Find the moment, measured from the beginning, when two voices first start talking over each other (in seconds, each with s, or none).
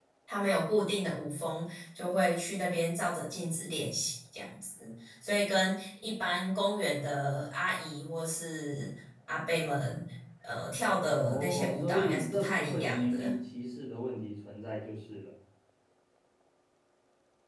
11.2 s